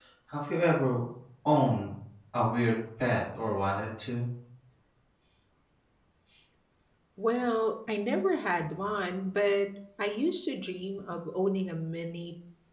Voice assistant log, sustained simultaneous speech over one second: none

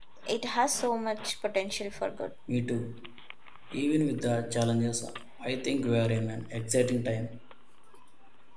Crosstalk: none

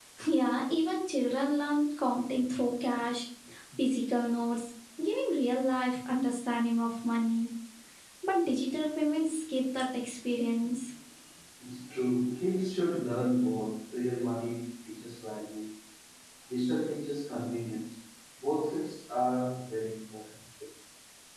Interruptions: none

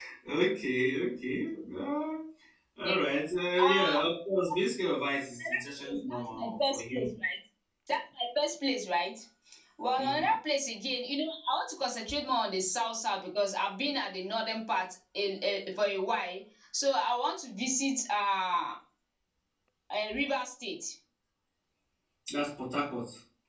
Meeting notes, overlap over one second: present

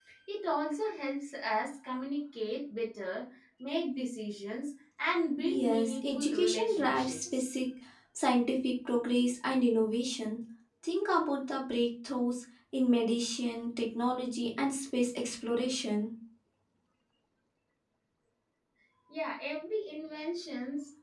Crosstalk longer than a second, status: present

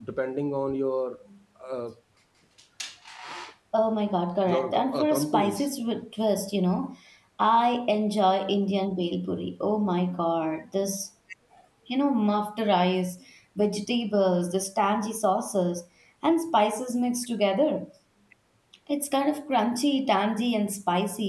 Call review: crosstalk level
present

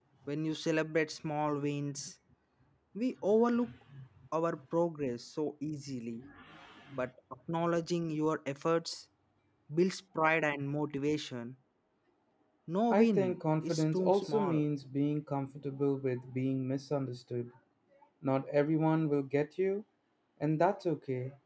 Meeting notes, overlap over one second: present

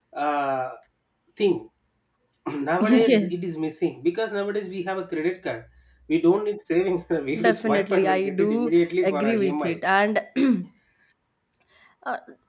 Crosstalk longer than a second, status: present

